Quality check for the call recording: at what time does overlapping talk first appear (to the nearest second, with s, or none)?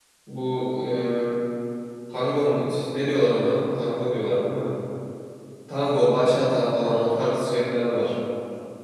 none